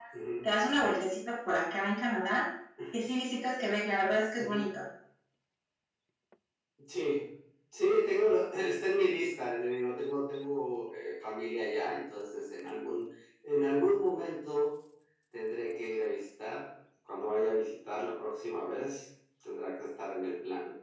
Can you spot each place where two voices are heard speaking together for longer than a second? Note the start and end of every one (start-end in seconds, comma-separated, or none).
none